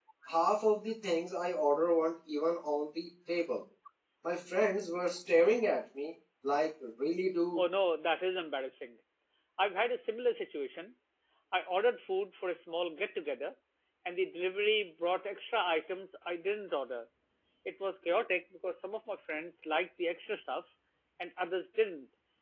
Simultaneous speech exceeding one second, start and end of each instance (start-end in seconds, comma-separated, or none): none